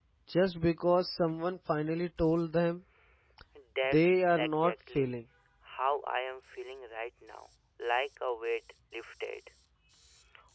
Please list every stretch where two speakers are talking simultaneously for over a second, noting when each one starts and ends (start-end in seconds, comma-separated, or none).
3.9-5.2